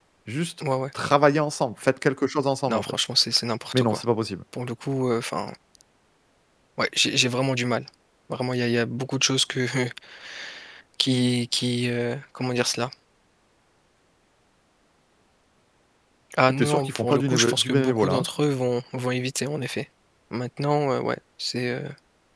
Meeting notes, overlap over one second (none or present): present